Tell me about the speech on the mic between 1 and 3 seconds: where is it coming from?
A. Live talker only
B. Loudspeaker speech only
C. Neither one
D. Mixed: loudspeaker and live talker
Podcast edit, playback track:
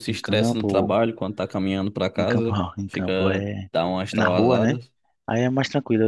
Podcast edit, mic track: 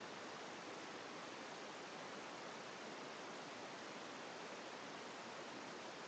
C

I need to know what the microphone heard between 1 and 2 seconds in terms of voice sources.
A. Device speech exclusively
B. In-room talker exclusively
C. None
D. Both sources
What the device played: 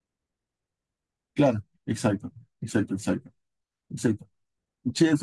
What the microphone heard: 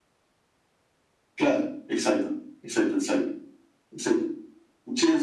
A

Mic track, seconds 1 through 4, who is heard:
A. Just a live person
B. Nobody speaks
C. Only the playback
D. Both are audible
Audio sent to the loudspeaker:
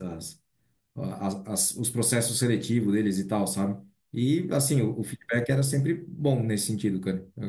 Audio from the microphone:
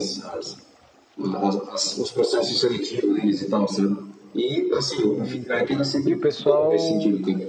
C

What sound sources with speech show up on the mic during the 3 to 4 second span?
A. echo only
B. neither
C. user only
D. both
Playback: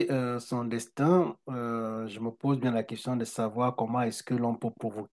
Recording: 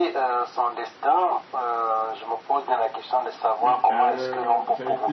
D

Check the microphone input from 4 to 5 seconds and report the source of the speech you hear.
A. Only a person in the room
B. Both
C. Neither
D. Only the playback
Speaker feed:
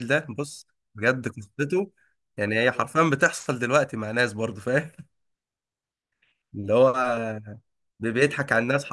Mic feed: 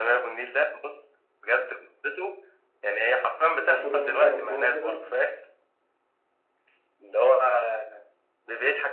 B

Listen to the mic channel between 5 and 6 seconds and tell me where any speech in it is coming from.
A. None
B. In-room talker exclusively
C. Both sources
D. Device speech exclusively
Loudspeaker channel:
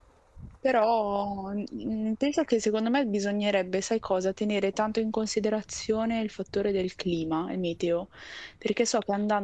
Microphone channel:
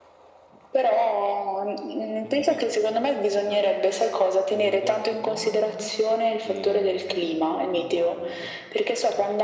C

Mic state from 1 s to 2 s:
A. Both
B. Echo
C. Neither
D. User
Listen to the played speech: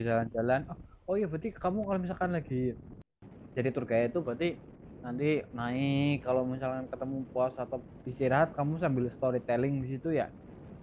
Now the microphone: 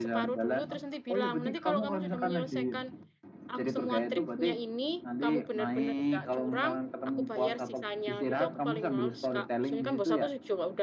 A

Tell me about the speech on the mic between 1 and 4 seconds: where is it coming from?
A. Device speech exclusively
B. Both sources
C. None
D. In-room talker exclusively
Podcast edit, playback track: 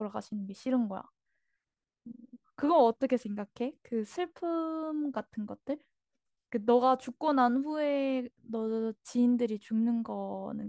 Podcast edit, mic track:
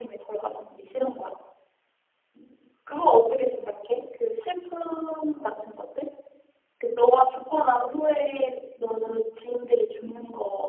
A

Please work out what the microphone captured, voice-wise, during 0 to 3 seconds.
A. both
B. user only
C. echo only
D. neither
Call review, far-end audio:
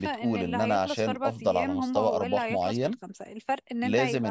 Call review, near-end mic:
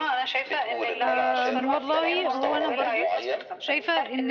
A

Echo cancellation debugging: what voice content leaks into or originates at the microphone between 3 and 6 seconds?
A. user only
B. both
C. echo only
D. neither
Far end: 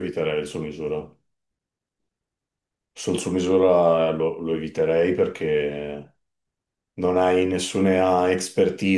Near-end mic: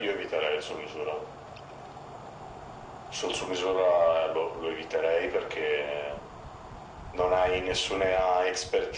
C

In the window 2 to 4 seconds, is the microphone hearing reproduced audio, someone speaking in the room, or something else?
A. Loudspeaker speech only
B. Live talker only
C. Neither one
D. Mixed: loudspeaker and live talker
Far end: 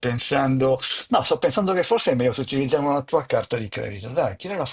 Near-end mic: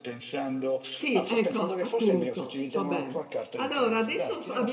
D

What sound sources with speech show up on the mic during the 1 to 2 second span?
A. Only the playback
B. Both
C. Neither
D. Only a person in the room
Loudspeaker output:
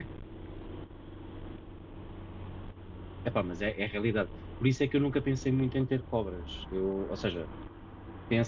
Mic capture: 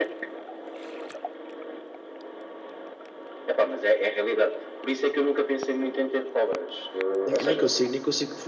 C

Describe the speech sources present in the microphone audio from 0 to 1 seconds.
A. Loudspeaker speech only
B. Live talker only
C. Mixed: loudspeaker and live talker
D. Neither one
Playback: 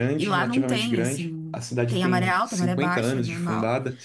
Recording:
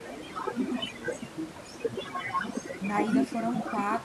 A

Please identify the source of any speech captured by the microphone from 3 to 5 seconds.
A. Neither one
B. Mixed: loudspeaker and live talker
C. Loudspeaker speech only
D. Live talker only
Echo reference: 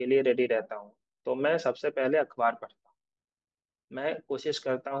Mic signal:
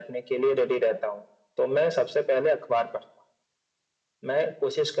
C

